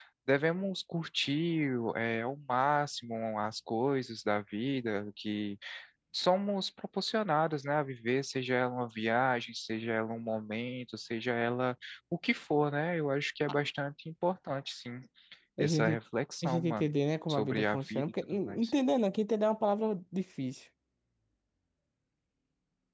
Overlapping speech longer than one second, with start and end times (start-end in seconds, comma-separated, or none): 17.3-18.7